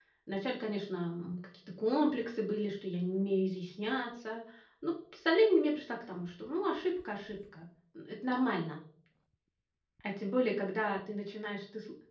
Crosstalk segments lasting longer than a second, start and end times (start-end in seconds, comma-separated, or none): none